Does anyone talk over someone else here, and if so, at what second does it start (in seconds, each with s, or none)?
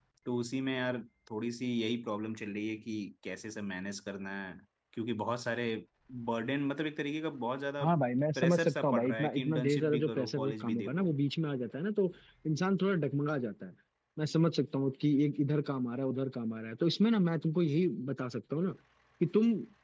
8.4 s